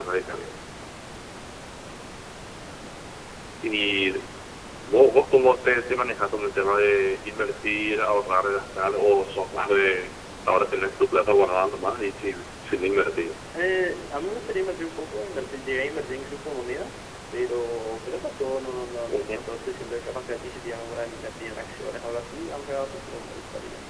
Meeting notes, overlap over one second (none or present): none